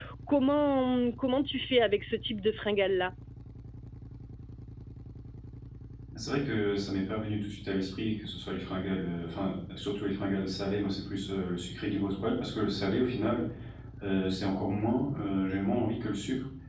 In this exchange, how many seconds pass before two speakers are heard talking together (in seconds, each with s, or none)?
none